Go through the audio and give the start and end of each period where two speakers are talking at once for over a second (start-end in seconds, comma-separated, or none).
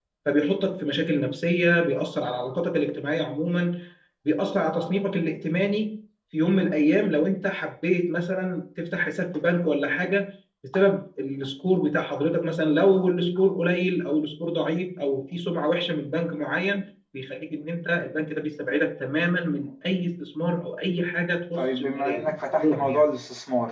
21.6-23.0